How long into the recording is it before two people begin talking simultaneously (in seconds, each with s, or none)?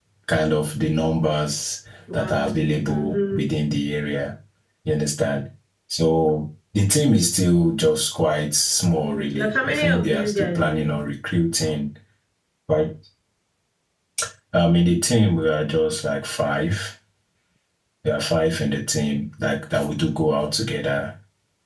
2.1 s